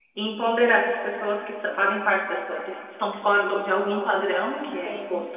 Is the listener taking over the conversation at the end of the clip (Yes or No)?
No